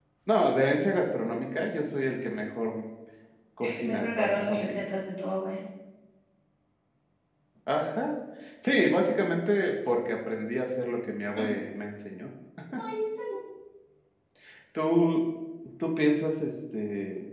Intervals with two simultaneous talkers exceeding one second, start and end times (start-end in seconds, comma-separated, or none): 3.6-4.8